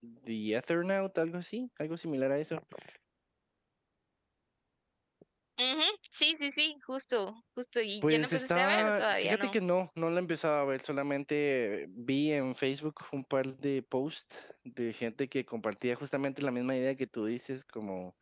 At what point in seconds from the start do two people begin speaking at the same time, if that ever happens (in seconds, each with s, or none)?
8.0 s